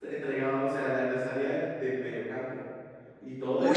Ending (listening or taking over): taking over